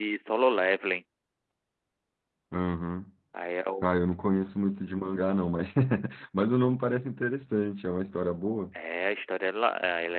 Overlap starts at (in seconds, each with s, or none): none